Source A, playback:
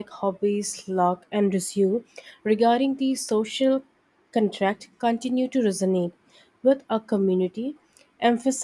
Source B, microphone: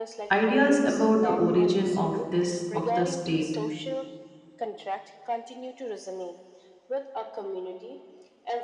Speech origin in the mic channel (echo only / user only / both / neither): both